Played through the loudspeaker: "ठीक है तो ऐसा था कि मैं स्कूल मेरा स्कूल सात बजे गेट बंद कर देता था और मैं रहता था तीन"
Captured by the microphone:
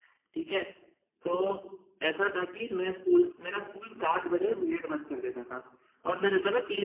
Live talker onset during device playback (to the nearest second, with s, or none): none